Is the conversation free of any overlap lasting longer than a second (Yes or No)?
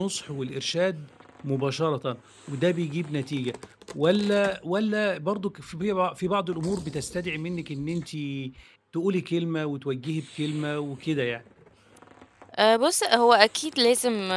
Yes